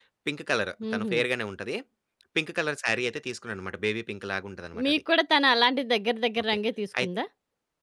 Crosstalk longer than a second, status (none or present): none